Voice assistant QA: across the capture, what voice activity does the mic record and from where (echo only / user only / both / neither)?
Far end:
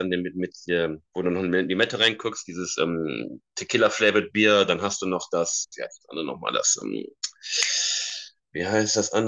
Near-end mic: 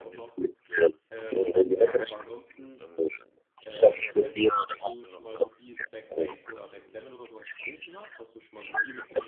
both